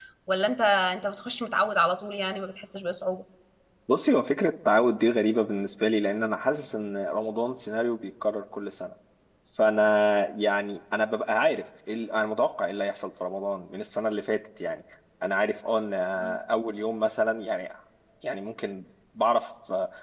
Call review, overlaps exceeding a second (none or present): none